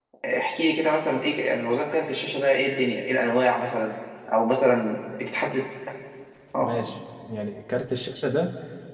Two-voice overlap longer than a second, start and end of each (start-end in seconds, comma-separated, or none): none